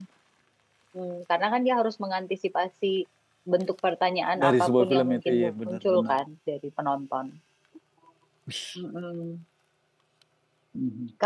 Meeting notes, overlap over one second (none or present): present